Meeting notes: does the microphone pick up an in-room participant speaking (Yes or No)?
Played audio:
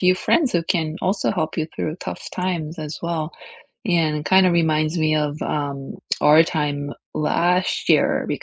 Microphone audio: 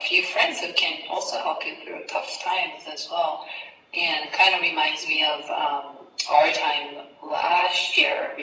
No